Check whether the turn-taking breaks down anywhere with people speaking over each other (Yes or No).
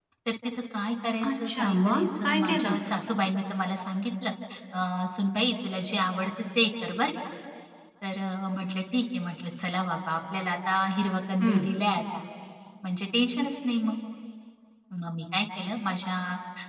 Yes